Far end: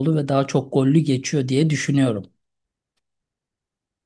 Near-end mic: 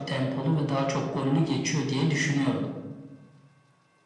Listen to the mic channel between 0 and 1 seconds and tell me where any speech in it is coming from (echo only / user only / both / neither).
echo only